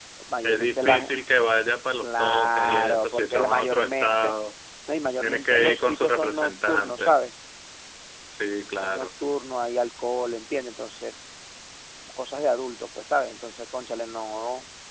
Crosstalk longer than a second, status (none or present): present